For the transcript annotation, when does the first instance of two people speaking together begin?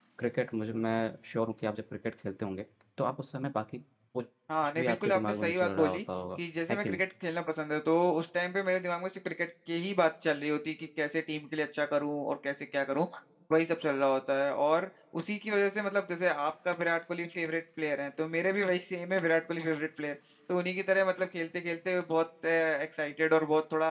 4.5 s

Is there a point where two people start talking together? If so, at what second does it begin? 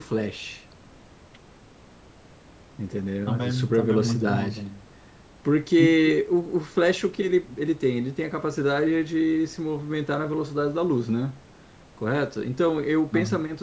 3.3 s

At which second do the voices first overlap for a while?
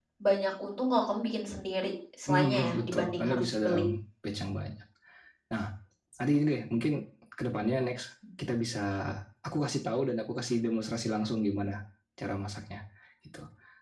2.3 s

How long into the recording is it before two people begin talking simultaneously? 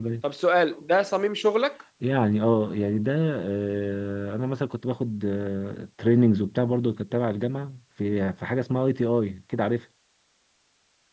none

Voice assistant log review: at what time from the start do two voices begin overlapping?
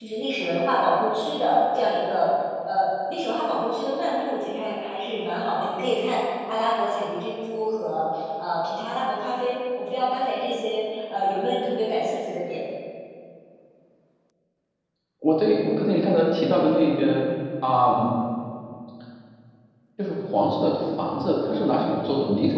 none

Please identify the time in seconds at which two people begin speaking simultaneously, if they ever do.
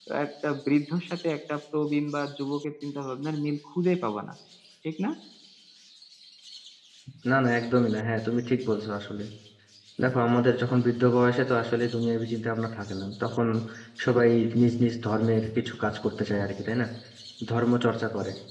none

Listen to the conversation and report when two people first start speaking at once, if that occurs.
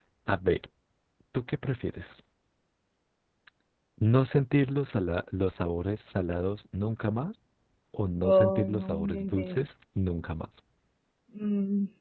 8.2 s

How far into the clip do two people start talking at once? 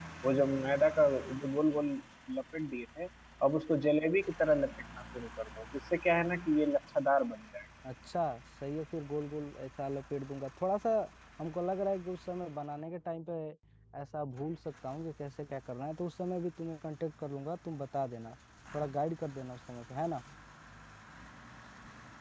none

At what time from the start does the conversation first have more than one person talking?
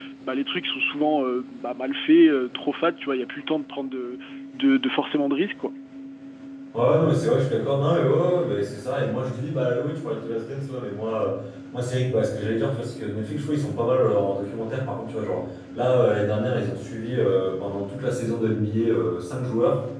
none

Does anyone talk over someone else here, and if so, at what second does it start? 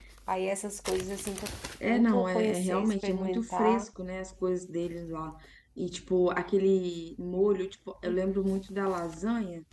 1.9 s

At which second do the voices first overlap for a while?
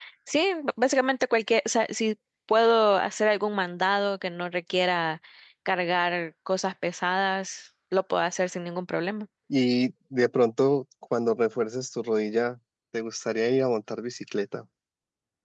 none

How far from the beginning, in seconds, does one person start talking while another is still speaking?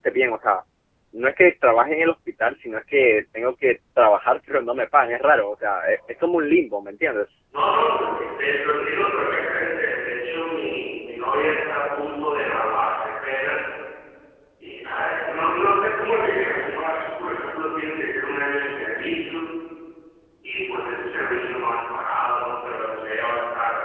none

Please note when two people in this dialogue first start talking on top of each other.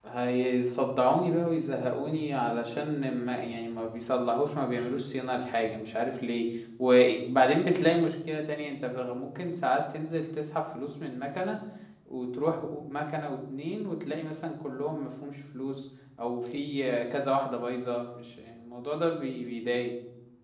none

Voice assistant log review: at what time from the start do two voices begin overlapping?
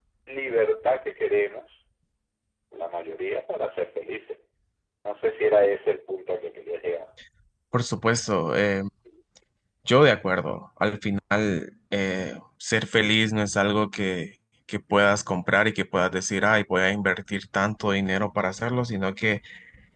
none

